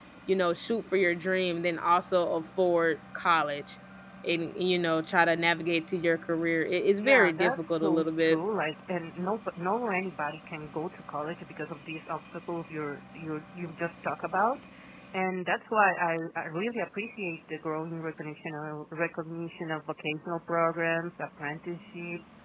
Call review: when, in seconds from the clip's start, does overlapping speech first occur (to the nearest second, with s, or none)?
7 s